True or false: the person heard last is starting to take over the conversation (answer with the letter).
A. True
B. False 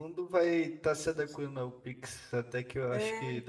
B